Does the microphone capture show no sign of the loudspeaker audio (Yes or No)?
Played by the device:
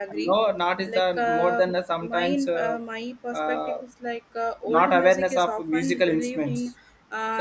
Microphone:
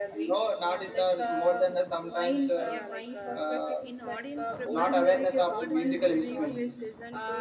No